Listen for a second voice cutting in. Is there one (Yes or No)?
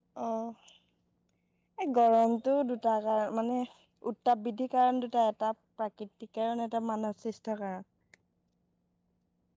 No